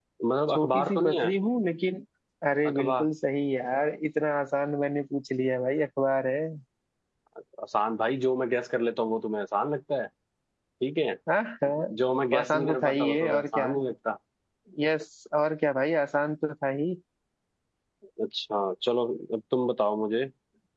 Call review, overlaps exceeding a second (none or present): present